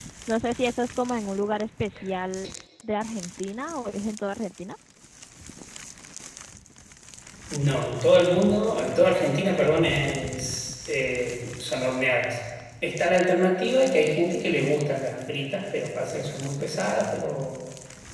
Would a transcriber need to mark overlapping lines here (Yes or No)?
No